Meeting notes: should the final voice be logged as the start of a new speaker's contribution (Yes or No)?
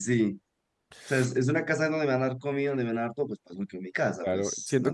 Yes